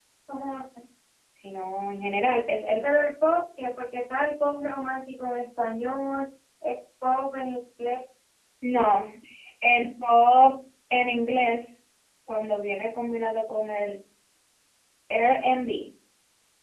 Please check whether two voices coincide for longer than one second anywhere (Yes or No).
No